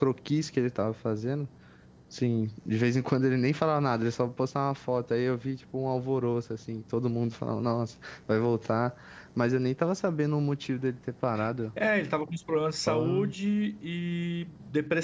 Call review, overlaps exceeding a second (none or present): none